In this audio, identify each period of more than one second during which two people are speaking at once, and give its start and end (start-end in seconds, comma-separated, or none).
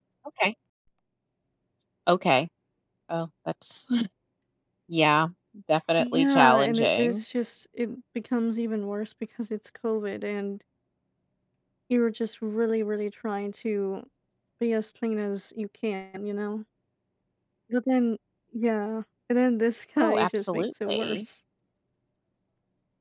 6.0-7.2, 20.0-21.2